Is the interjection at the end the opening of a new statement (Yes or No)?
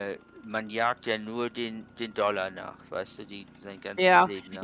Yes